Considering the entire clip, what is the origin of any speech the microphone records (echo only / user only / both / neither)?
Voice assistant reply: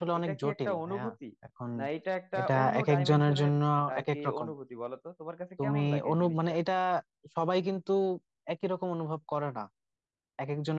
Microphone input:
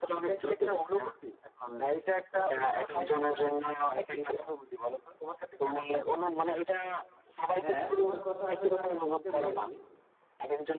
both